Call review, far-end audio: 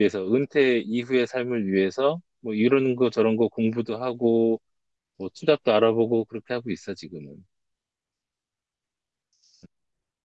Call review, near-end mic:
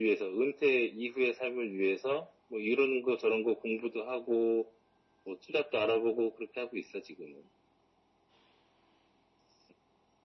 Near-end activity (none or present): none